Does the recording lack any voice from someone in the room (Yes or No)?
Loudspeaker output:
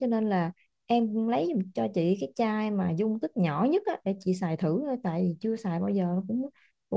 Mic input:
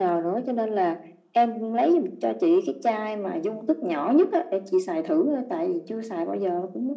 Yes